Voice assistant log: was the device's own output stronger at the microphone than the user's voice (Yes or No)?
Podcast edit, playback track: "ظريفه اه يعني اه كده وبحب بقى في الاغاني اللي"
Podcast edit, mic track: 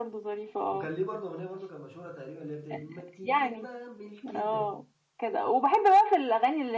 Yes